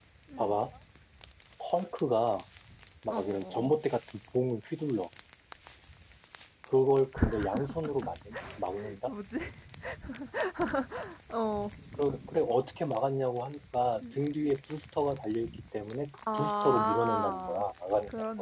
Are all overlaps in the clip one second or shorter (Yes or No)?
No